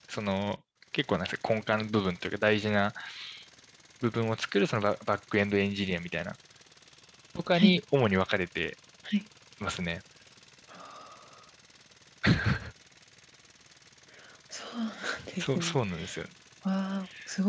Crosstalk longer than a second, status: none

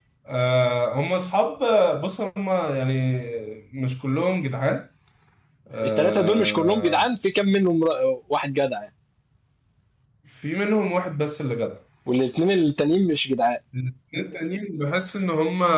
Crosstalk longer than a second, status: present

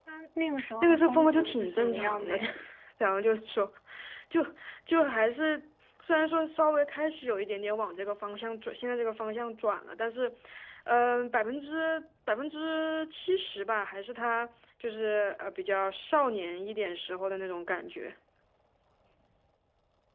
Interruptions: present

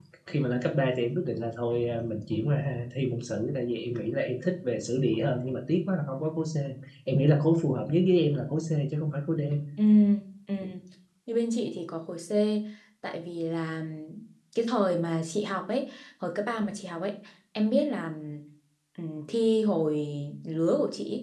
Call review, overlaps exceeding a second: none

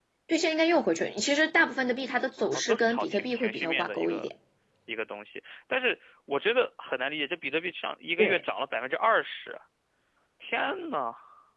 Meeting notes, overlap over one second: present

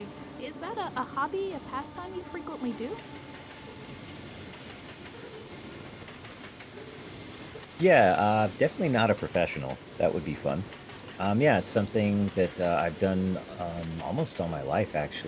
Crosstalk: none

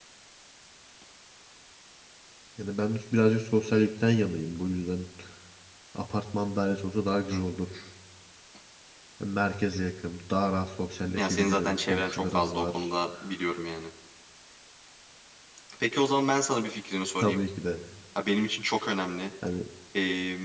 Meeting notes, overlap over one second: present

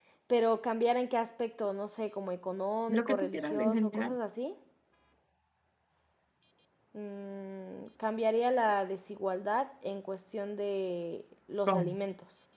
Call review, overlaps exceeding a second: present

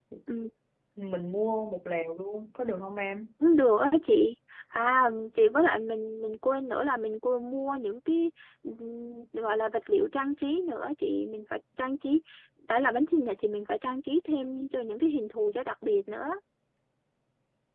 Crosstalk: none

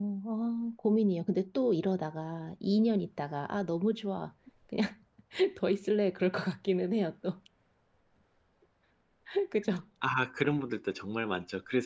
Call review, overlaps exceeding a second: none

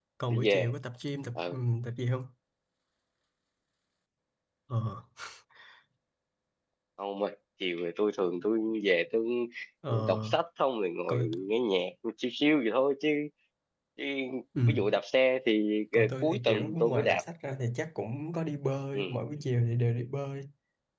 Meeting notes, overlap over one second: present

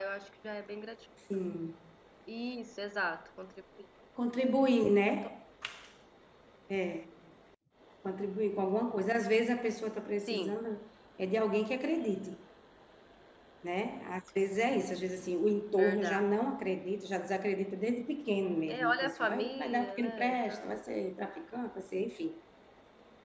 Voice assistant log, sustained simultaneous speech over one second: present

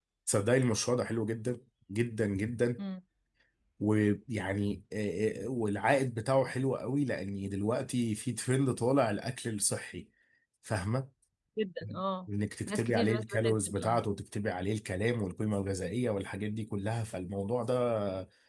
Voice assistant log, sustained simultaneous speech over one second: present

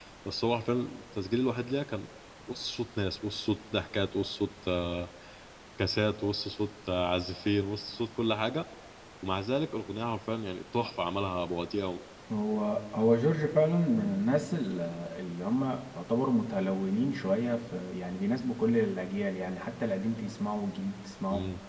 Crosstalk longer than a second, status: none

